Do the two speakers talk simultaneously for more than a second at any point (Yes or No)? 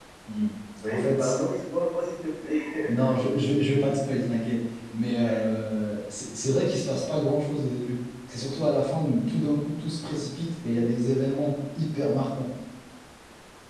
No